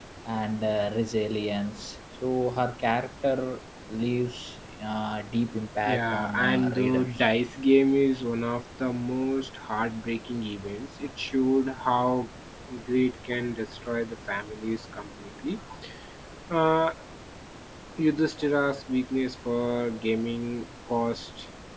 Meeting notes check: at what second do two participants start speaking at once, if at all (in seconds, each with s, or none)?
5.8 s